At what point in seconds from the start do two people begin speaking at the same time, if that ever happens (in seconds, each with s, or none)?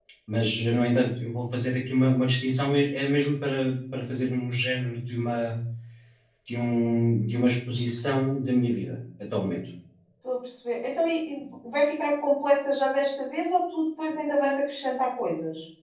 none